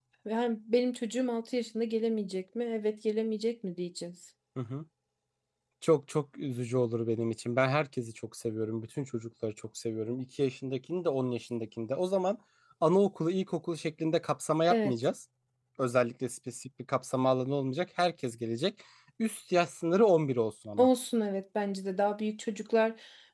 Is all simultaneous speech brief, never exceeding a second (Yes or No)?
Yes